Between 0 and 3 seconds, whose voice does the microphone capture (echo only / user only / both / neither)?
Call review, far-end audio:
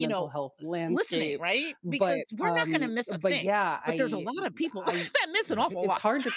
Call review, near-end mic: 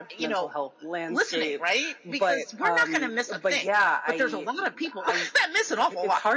echo only